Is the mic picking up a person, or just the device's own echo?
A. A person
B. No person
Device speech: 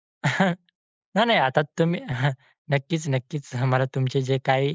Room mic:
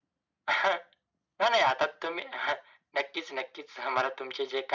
B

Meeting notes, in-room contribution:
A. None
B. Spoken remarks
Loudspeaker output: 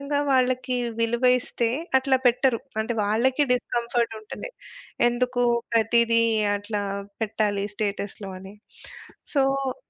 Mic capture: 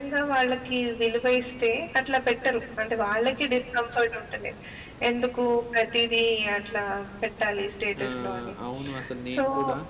B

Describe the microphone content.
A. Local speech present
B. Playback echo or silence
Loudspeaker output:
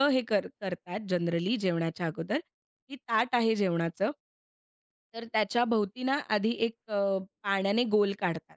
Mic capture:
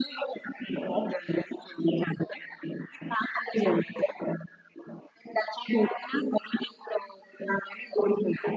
B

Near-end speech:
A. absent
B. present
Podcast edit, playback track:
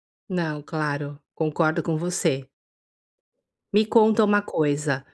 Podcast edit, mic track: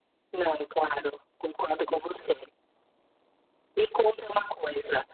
A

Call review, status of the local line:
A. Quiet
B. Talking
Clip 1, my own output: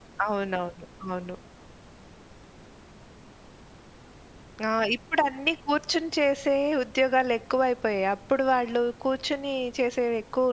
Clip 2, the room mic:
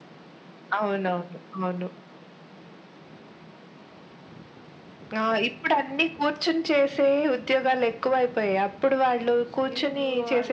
B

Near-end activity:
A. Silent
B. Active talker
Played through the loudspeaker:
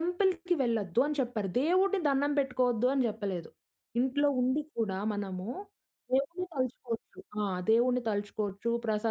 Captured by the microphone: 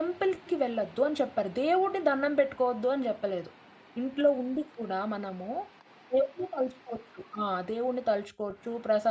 A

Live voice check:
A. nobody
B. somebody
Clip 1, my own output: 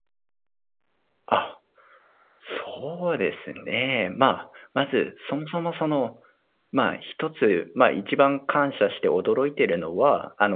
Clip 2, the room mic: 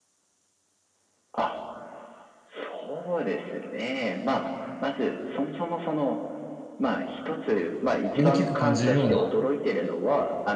B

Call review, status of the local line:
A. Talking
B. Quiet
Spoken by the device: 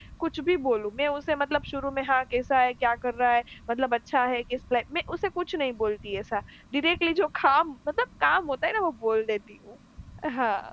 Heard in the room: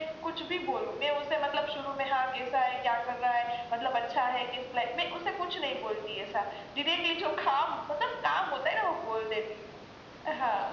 B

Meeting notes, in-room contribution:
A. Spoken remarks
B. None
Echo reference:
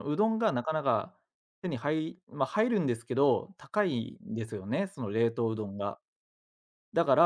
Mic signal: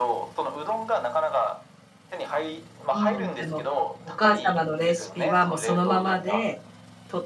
A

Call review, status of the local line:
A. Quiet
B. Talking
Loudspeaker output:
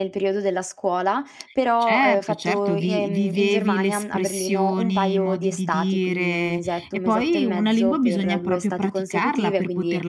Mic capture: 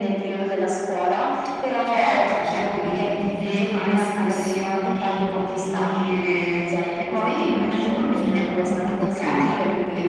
B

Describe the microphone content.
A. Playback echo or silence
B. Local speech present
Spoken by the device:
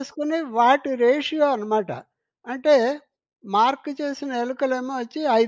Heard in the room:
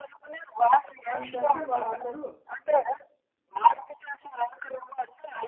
B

